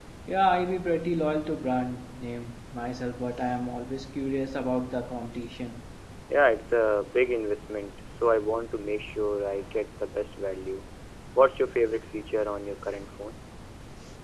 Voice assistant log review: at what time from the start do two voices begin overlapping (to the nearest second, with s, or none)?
none